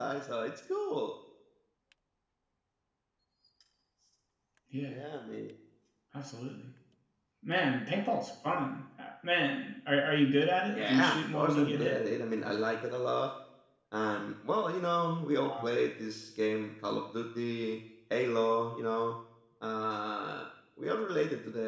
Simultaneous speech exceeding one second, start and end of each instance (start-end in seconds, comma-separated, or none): 10.8-12.0